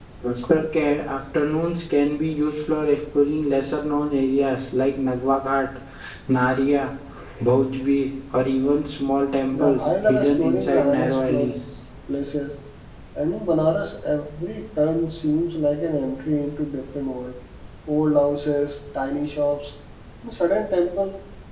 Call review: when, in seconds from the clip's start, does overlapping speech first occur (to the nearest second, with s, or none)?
10 s